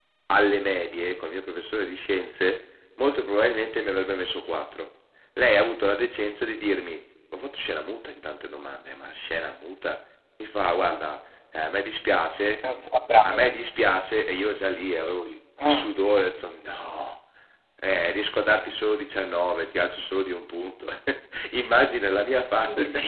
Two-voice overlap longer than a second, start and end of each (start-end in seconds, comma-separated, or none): none